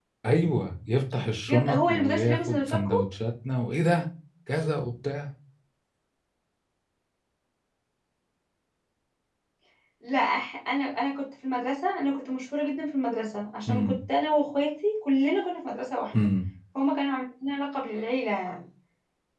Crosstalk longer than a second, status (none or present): present